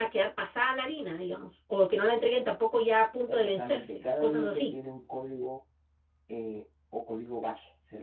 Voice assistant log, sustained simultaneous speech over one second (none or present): present